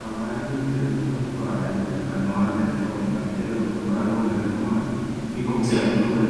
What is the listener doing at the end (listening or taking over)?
listening